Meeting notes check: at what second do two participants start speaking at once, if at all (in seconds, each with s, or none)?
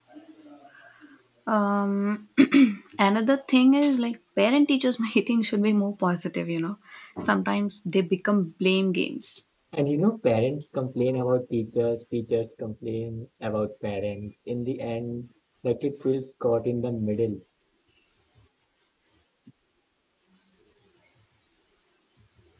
none